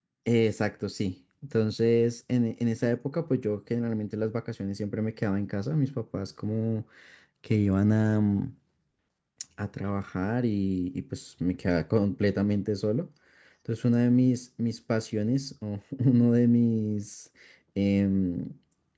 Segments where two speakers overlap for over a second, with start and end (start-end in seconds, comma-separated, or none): none